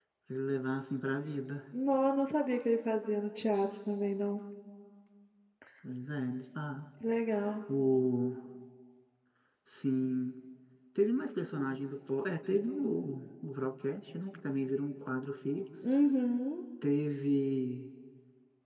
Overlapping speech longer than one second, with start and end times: none

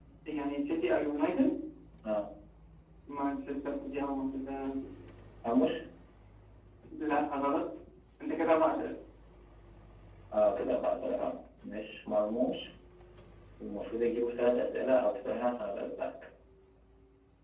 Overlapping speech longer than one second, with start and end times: none

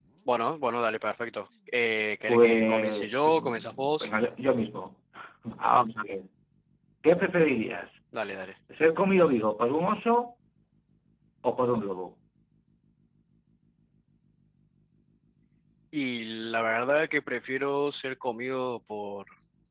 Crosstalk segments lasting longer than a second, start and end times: 2.3-4.1

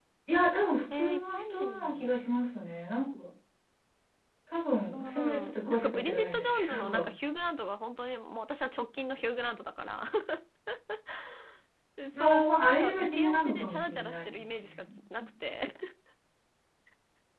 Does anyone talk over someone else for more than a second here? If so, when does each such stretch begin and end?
0.9-2.1, 4.9-7.1, 12.2-14.8

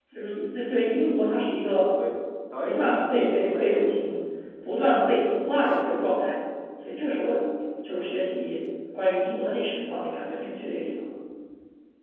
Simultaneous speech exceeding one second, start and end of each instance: 2.6-3.9

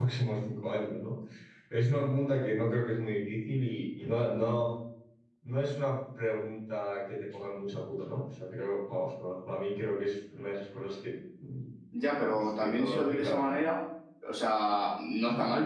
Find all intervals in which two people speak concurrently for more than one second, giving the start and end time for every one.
12.2-13.6

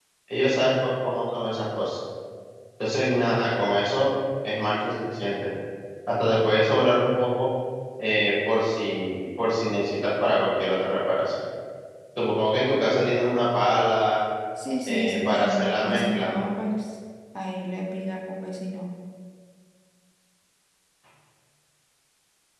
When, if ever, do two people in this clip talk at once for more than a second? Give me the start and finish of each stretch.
14.8-16.4

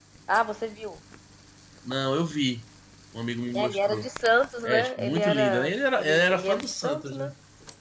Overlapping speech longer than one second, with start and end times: 4.7-7.3

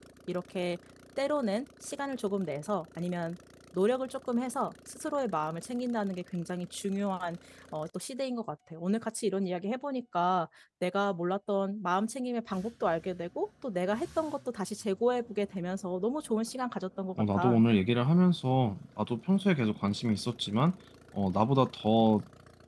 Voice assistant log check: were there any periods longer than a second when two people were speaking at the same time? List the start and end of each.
none

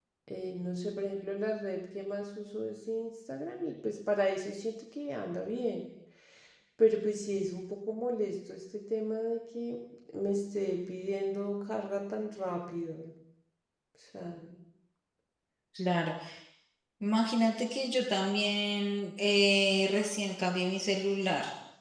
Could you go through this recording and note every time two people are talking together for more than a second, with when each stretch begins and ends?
none

